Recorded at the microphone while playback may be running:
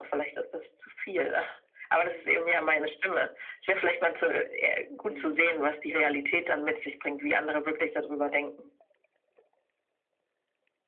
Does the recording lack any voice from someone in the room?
No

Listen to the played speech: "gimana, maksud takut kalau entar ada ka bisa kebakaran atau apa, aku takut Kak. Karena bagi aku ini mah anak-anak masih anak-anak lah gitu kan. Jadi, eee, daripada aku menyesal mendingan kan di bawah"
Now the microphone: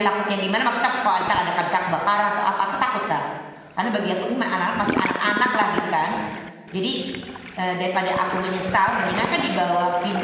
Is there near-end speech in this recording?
No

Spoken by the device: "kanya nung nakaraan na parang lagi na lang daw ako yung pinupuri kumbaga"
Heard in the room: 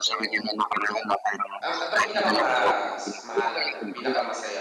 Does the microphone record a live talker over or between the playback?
Yes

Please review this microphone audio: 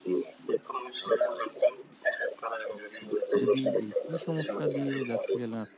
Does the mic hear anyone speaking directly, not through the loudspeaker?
Yes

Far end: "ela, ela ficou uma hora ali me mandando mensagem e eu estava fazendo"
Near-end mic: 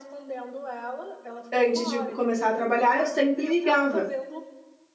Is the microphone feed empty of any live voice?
No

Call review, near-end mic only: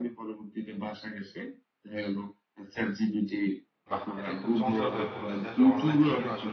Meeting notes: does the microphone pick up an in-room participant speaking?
Yes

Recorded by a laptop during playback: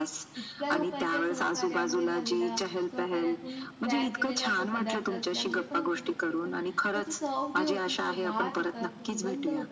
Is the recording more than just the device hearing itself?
Yes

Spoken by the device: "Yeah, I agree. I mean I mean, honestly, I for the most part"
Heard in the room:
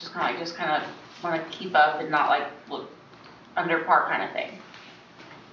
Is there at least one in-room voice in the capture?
Yes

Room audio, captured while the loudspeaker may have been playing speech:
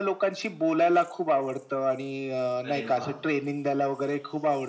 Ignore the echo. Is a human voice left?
Yes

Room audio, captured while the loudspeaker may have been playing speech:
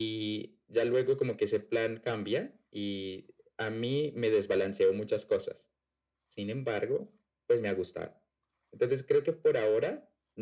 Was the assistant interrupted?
No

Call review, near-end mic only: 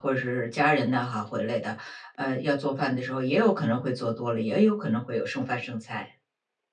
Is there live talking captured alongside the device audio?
Yes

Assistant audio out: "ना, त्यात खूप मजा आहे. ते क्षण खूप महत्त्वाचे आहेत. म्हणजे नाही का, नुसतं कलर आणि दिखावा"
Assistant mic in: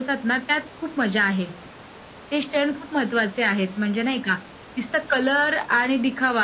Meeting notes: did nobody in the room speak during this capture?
Yes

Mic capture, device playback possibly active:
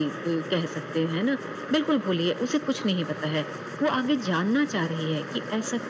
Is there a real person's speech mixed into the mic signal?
No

